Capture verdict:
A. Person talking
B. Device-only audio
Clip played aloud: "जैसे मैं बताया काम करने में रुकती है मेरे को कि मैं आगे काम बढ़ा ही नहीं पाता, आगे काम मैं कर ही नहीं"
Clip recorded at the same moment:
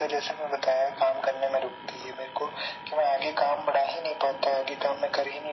B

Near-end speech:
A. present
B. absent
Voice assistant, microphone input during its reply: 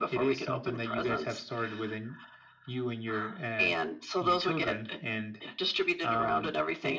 B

